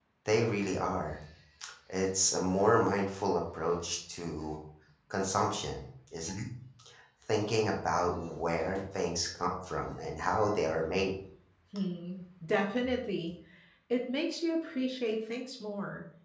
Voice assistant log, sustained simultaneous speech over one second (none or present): none